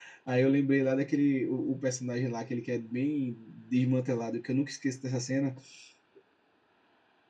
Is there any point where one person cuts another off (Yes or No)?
No